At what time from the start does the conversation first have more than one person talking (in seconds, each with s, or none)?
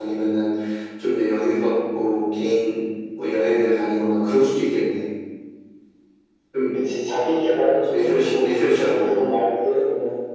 7.9 s